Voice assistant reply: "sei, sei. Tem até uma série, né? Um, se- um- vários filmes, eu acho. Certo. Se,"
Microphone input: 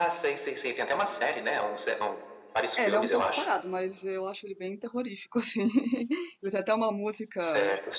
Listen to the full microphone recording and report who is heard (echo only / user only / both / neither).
both